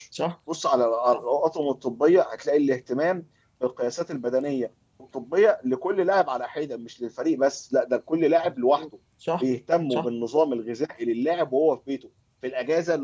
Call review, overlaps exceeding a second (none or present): none